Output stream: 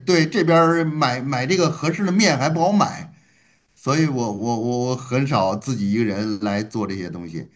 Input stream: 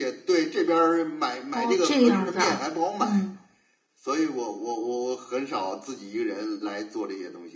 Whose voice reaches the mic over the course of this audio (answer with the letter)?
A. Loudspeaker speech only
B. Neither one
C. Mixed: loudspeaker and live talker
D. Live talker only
C